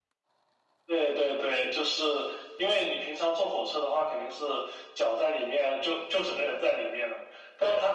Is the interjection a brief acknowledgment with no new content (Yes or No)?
Yes